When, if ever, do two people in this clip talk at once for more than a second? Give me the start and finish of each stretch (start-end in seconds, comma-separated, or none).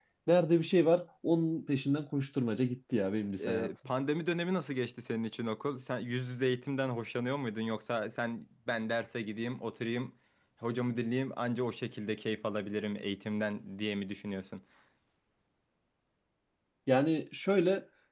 none